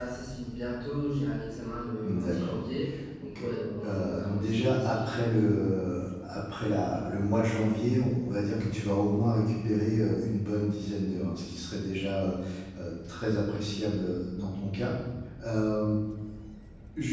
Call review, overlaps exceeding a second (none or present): present